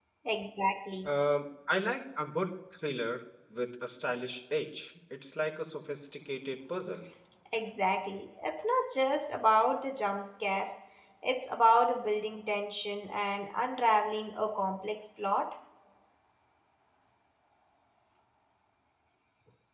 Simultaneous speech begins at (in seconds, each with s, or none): none